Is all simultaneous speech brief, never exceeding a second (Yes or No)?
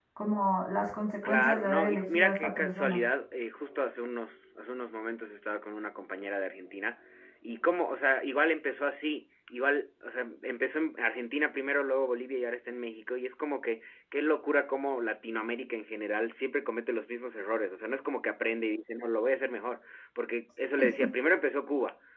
No